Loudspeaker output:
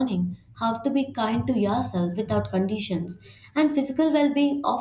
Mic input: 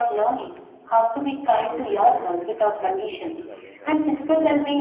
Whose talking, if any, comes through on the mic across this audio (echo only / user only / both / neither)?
both